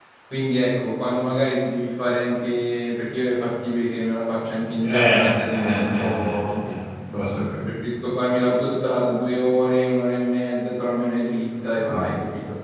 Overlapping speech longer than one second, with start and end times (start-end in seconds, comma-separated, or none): 4.8-6.7